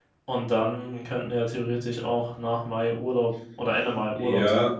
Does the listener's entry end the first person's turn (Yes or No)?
Yes